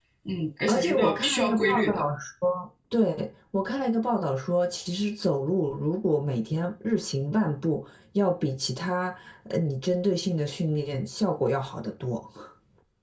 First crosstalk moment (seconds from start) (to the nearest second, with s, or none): 1 s